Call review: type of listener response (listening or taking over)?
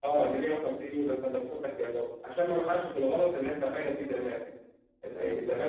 listening